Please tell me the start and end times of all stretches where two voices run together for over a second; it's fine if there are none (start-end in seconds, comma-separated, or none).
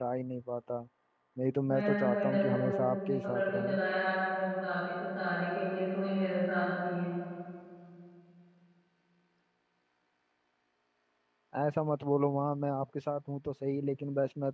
1.7-3.8